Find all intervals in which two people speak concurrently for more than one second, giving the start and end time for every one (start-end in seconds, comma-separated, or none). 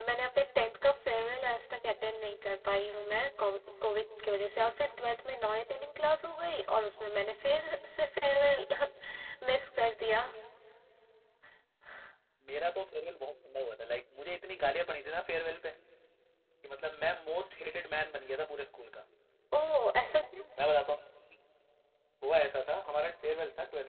none